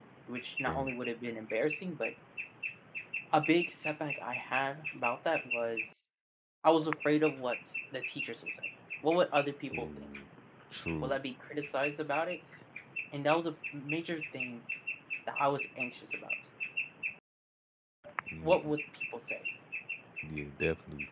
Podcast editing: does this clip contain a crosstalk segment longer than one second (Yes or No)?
No